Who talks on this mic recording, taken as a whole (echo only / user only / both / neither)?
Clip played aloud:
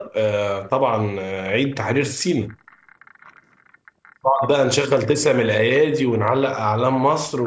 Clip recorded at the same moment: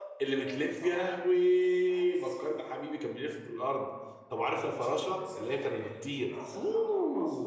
both